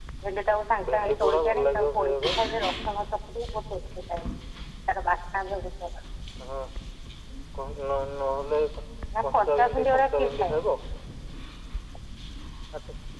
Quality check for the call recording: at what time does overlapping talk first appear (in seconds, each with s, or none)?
0.9 s